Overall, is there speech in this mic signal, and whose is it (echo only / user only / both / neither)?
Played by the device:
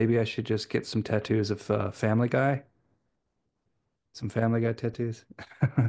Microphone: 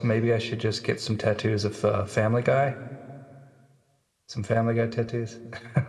echo only